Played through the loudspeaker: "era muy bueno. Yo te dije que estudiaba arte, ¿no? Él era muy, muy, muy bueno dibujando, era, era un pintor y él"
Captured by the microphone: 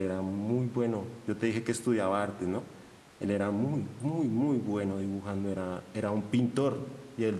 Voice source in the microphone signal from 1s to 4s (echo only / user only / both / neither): echo only